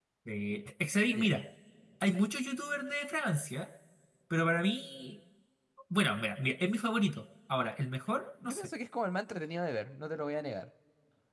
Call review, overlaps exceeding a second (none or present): none